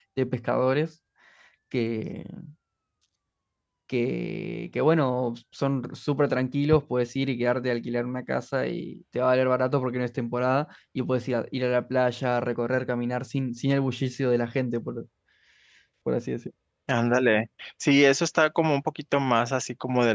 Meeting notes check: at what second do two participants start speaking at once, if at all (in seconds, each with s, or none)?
none